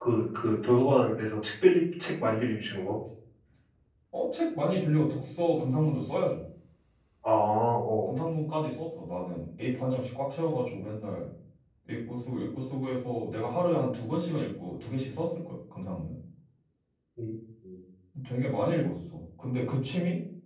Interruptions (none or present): none